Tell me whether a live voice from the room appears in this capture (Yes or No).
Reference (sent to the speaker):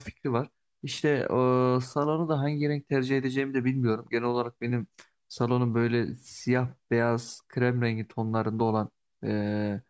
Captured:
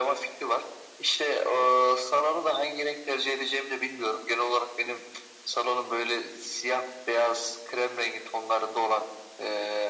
No